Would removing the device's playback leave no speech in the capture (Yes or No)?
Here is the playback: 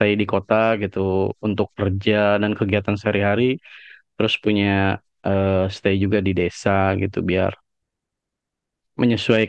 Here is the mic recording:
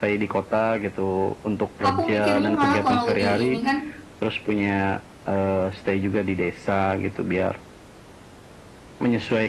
No